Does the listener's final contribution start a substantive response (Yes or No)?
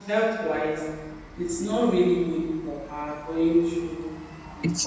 No